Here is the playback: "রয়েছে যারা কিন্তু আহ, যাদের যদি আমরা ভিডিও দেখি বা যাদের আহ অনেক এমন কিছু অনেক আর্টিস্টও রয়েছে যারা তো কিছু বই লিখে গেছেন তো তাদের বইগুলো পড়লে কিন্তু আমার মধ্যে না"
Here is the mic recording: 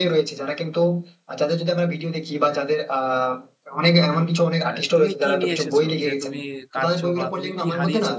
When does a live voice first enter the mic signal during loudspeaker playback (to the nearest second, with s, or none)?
5 s